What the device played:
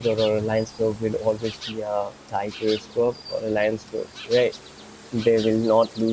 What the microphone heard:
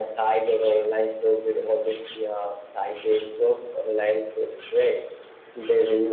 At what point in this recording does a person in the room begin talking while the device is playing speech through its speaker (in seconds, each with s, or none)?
none